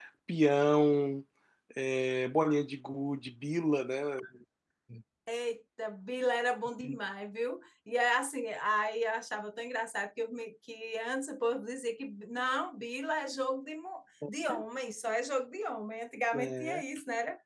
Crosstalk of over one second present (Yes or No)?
No